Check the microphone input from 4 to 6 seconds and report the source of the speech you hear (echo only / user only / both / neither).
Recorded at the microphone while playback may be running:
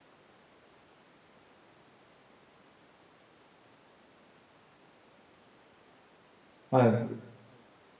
neither